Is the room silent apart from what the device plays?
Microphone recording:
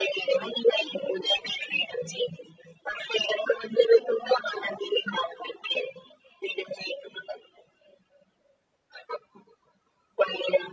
Yes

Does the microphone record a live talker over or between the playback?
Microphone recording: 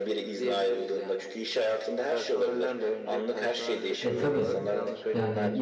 Yes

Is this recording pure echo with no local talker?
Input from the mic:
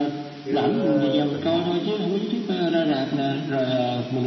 No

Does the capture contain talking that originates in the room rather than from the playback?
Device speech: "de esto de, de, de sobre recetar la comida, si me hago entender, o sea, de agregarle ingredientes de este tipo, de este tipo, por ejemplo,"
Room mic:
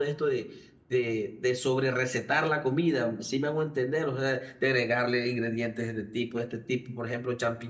No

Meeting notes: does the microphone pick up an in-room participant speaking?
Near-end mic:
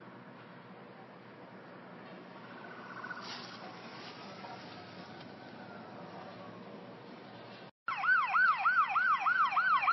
No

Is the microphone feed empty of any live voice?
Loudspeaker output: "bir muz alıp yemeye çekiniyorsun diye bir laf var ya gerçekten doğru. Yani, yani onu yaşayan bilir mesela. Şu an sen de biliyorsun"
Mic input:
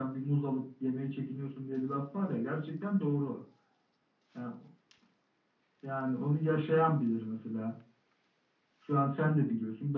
Yes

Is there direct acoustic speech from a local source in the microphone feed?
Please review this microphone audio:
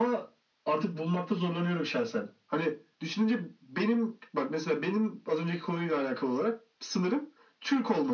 No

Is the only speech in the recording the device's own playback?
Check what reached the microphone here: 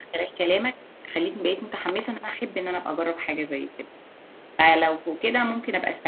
No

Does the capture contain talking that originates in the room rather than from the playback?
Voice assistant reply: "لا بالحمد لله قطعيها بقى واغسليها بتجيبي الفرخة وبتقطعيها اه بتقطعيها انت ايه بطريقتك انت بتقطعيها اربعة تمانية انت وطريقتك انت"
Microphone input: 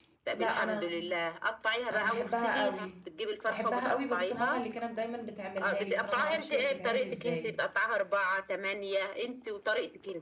Yes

